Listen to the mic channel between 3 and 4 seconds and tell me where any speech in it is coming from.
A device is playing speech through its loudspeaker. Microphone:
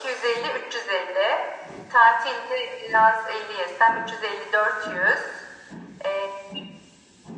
echo only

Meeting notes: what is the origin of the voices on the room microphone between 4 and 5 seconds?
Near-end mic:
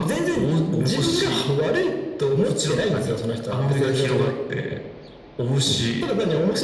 echo only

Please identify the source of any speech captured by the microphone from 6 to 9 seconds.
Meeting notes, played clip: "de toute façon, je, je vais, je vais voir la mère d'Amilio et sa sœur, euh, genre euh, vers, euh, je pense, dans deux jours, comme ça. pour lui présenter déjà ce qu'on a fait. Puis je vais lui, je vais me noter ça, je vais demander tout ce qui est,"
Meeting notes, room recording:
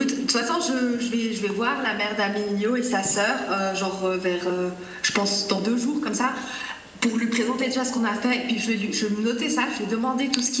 echo only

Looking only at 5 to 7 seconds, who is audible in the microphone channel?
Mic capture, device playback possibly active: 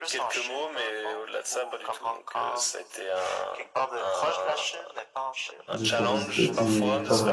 both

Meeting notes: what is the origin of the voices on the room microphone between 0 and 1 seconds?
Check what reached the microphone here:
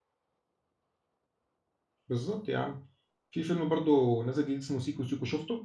neither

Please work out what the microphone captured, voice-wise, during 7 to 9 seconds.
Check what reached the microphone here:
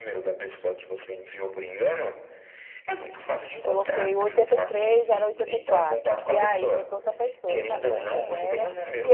both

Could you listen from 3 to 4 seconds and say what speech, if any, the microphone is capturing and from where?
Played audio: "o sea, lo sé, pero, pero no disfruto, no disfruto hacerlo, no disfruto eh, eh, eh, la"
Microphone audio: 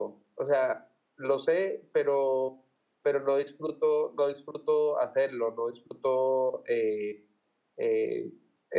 echo only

